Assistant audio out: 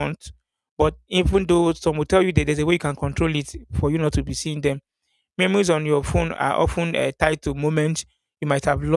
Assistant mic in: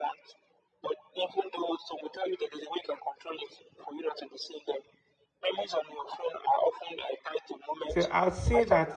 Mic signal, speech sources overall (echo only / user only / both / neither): both